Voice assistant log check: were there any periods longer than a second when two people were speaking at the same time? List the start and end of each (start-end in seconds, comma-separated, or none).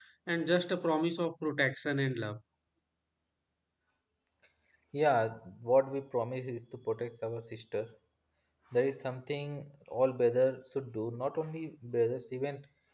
none